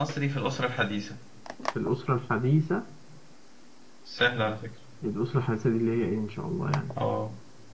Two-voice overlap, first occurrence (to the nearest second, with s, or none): none